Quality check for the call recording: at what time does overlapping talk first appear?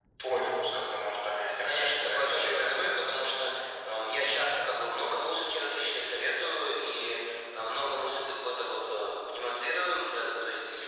1.6 s

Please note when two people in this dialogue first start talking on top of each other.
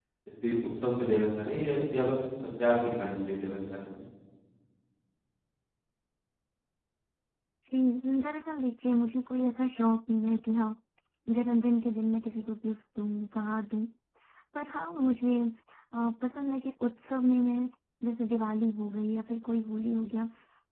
none

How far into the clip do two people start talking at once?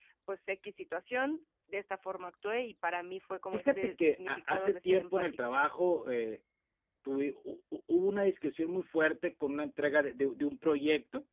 3.5 s

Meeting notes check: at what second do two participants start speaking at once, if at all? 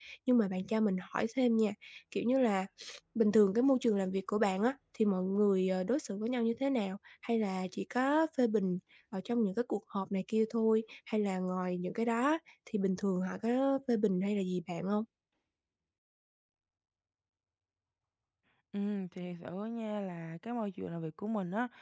none

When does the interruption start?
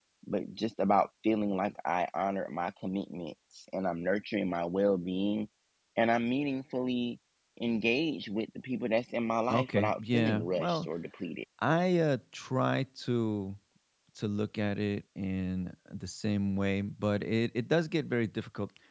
9.5 s

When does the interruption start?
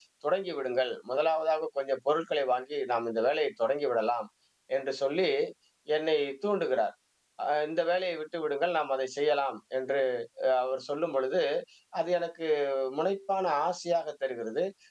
none

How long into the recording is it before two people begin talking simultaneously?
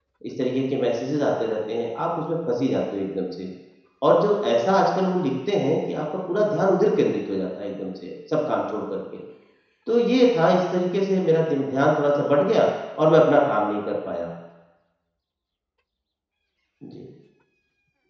none

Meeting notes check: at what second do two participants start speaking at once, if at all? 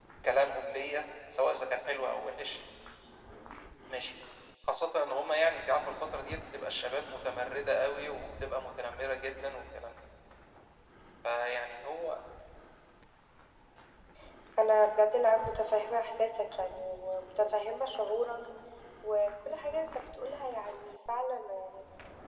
none

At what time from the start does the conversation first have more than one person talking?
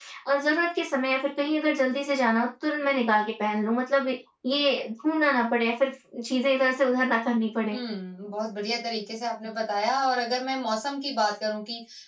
none

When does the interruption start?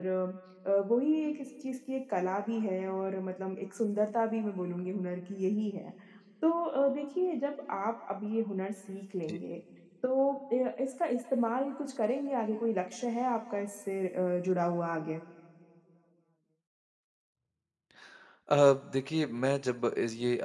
none

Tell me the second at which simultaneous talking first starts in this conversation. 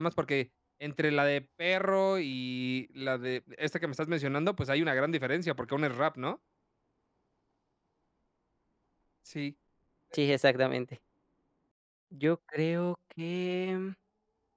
none

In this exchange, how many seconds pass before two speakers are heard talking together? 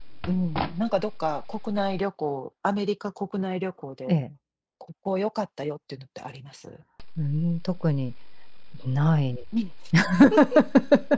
none

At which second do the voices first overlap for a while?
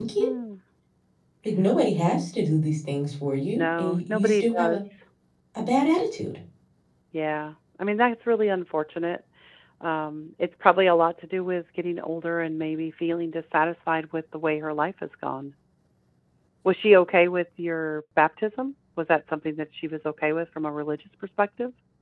3.5 s

